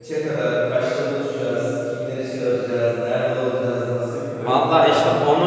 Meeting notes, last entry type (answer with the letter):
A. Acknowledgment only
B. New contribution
B